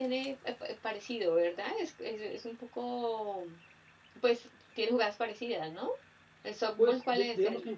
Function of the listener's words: taking over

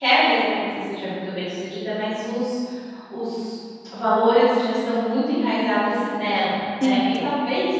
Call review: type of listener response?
listening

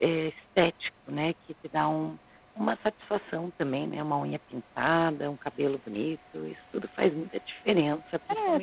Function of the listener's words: taking over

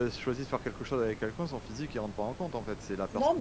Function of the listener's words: taking over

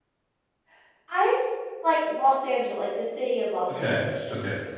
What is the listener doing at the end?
taking over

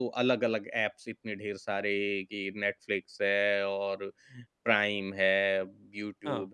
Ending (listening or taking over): listening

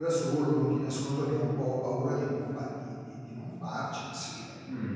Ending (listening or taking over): taking over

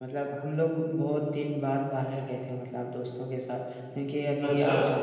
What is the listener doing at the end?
listening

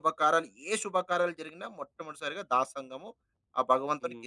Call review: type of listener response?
taking over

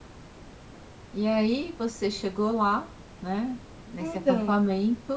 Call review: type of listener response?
listening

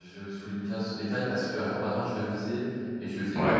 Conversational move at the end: listening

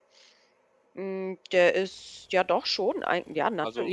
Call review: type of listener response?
taking over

